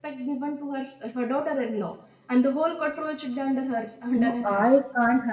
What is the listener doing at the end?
taking over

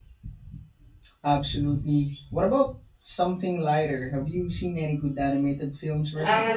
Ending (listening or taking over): taking over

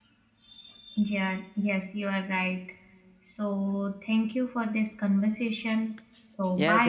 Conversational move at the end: taking over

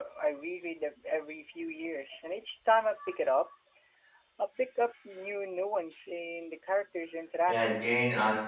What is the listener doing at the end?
taking over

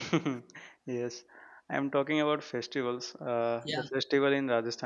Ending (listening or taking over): listening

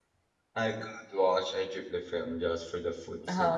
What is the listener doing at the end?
taking over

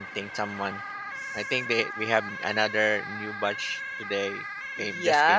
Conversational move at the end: taking over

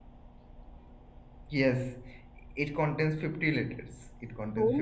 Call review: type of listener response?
taking over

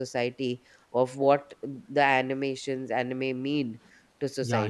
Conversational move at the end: taking over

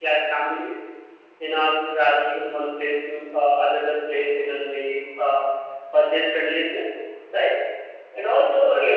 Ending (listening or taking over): listening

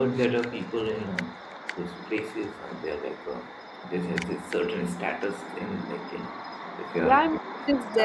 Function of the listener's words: taking over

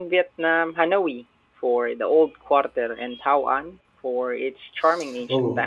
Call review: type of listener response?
taking over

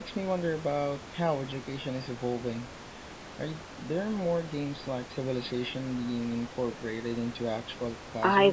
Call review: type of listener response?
taking over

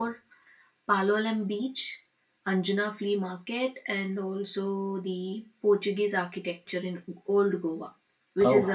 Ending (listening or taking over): listening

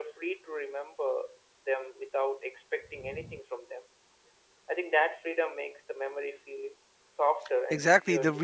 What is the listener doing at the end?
taking over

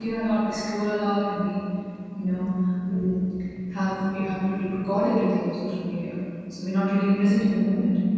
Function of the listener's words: listening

